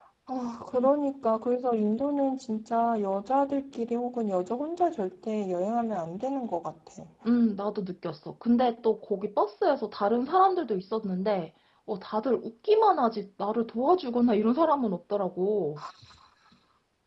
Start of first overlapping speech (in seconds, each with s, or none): none